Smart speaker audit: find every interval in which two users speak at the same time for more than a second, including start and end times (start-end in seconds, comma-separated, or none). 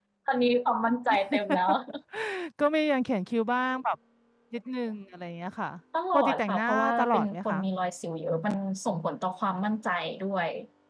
6.1-7.6